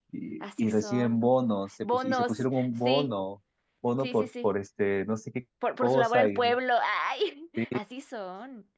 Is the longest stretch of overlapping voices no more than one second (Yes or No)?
No